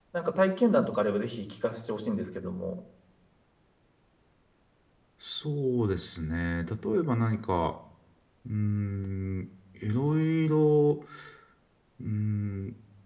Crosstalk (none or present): none